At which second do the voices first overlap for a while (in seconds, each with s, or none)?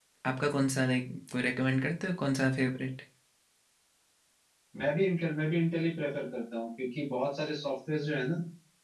none